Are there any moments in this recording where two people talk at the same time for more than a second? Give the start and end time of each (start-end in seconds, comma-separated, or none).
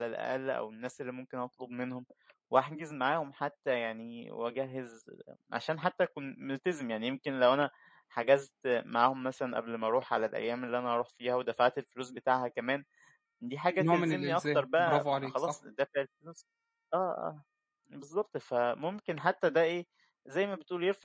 13.8-15.6